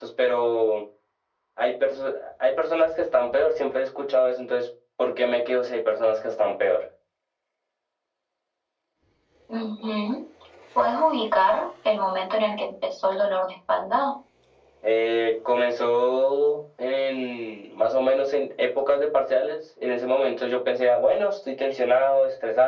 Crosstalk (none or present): none